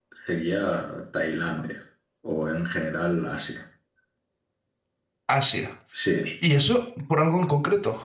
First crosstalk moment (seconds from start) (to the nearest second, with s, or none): none